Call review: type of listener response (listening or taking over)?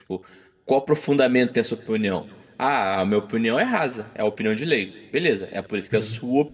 listening